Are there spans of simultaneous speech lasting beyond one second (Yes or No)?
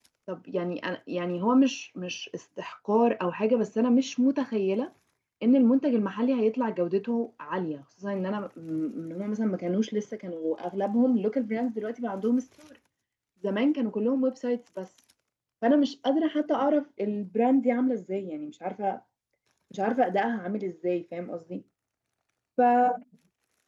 No